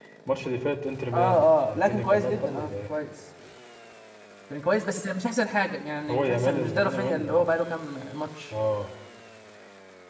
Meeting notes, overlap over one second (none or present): present